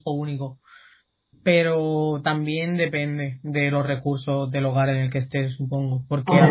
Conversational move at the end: listening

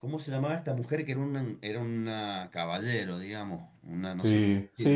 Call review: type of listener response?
taking over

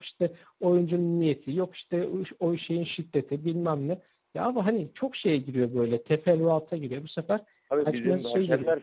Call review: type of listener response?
taking over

